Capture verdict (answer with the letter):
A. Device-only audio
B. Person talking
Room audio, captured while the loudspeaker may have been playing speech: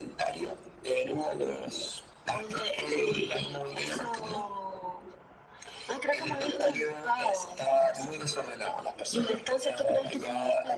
A